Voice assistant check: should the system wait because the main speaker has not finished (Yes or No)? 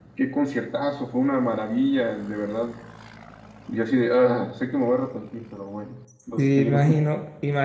No